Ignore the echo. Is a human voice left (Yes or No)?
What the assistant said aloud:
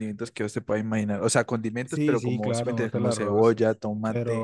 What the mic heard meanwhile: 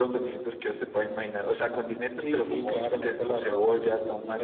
No